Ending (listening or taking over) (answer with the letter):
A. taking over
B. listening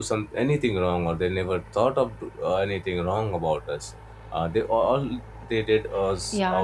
A